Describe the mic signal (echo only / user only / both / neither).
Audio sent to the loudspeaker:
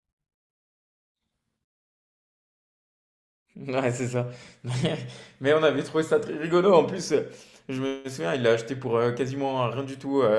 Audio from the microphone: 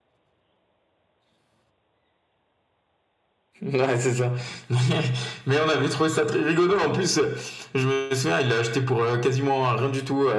echo only